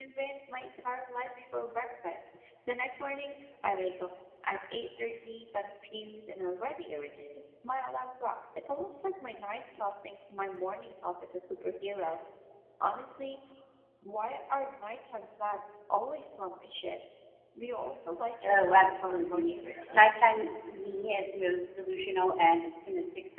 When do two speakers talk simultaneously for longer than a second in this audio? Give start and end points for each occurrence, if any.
18.4-20.2

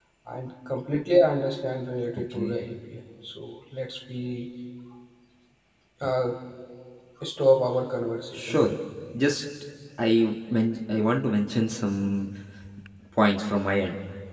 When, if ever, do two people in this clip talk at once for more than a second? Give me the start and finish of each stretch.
none

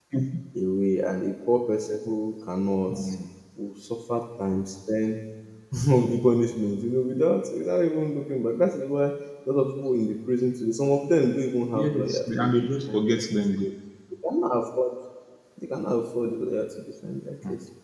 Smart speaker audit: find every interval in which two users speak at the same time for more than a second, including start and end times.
11.8-13.2

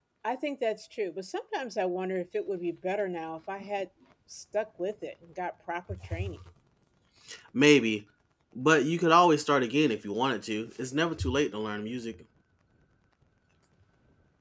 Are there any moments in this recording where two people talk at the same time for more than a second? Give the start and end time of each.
none

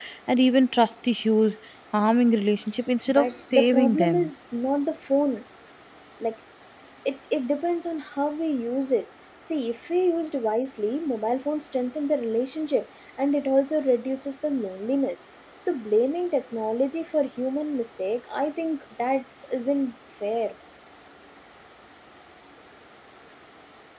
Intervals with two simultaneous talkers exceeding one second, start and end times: 3.1-4.3

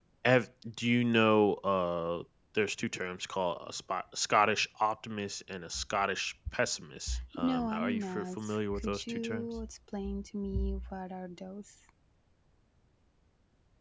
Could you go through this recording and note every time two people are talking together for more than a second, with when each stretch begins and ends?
7.4-9.5

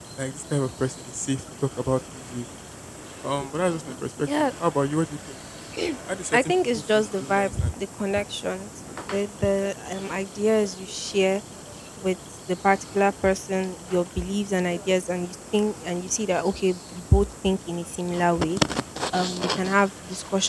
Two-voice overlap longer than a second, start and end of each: 6.3-7.7

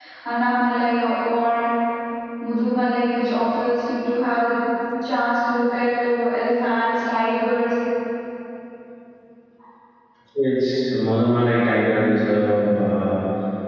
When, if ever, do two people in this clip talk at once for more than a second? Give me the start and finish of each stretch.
none

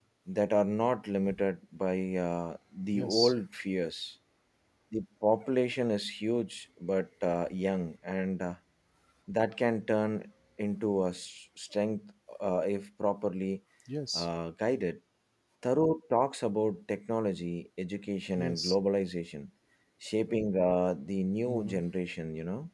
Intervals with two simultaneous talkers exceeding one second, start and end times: none

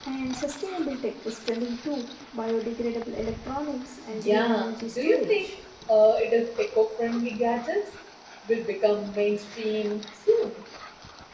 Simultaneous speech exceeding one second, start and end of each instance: 4.2-5.5

